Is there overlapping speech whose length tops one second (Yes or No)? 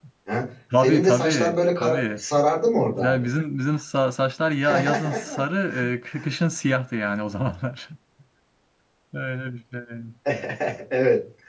Yes